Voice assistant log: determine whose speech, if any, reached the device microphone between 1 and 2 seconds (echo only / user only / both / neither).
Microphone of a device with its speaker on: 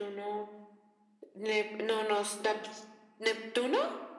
echo only